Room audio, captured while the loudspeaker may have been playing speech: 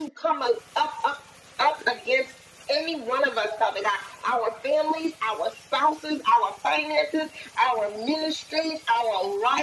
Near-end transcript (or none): none